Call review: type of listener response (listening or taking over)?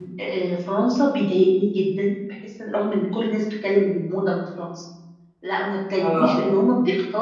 listening